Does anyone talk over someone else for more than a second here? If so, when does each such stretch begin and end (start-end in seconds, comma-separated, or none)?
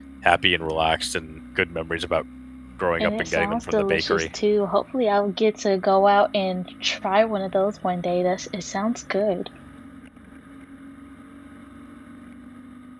3.0-4.2